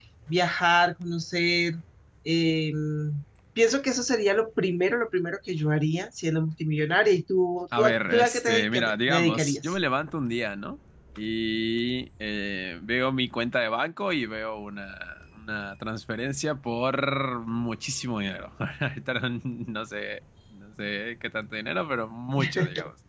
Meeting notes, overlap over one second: present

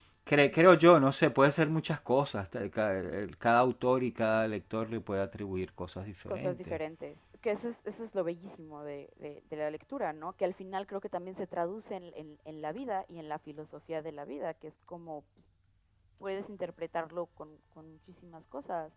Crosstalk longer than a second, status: none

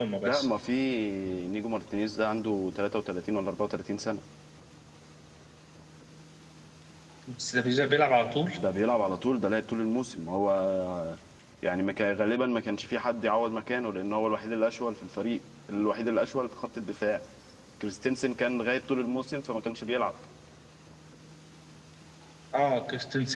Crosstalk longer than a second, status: none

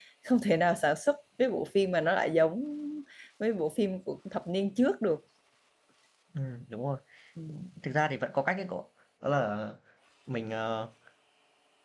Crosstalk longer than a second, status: none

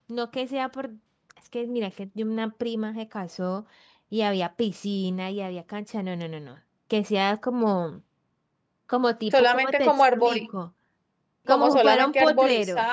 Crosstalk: present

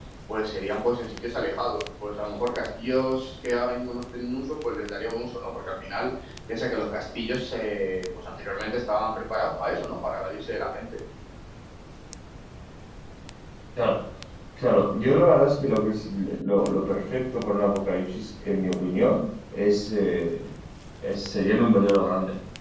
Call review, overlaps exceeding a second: none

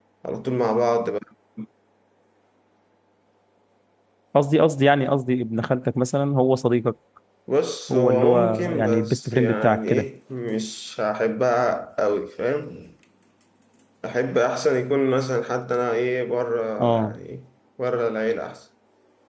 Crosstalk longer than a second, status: present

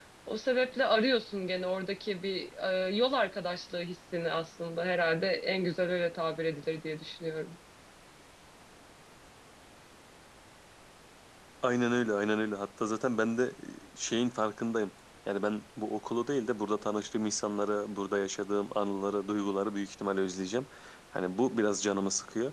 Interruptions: none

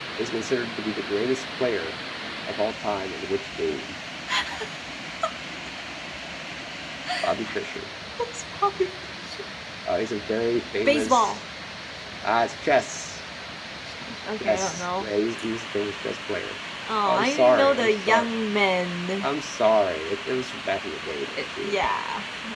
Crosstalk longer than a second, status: present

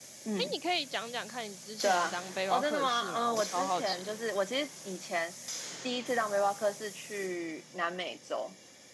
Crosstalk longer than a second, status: present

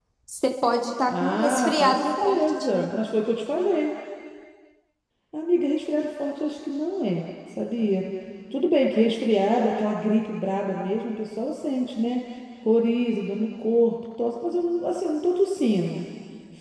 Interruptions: present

